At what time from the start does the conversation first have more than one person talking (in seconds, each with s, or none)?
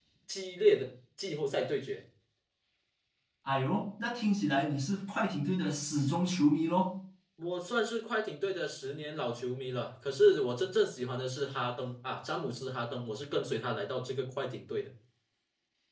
none